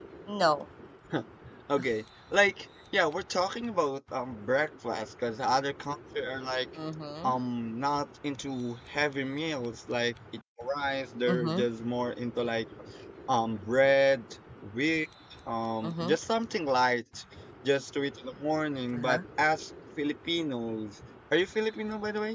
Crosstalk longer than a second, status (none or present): none